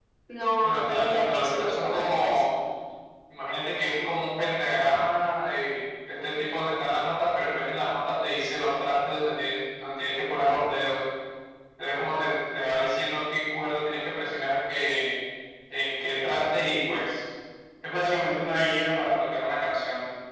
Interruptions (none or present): present